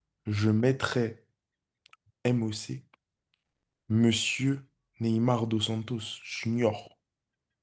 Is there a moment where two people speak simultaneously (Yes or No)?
No